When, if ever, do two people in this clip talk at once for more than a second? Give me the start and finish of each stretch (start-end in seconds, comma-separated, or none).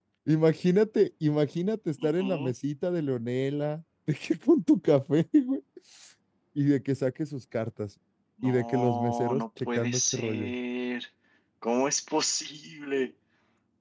8.4-10.5